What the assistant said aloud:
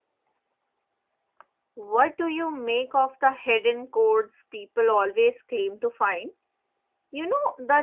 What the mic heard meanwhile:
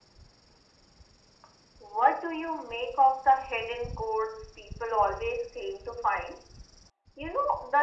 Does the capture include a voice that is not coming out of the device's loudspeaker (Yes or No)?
No